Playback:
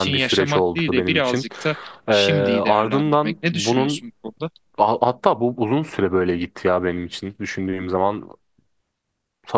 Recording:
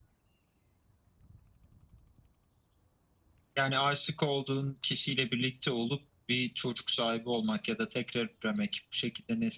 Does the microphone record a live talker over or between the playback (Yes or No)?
Yes